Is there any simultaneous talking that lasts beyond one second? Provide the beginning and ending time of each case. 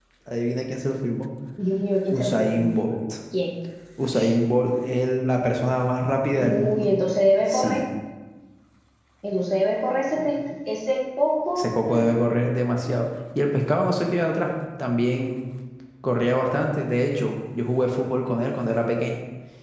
none

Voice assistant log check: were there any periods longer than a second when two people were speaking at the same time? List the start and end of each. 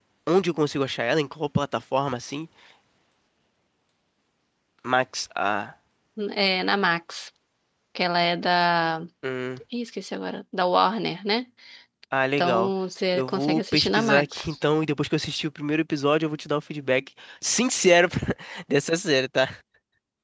13.1-14.4

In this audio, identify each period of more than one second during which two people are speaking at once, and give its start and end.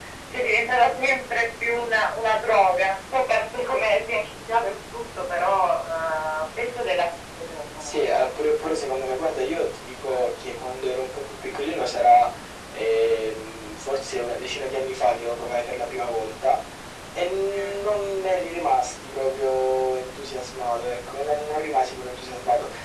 none

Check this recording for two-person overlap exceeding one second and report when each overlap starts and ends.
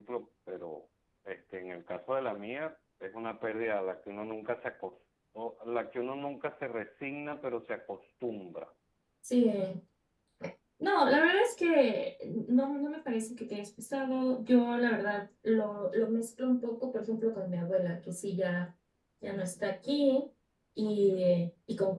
none

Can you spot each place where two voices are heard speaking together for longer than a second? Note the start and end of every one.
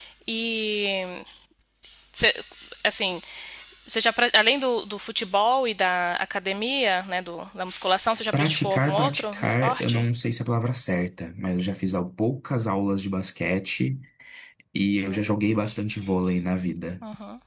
8.3-10.0

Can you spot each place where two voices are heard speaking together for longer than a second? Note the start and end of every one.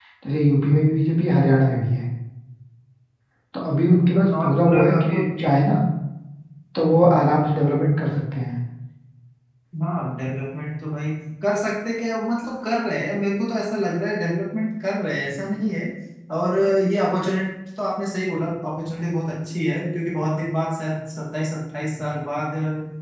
4.1-5.6

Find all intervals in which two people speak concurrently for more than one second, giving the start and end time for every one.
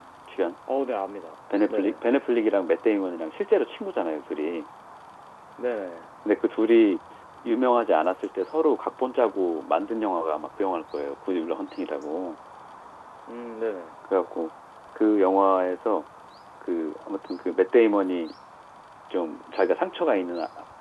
none

